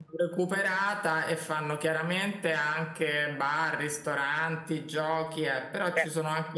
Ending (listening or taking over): listening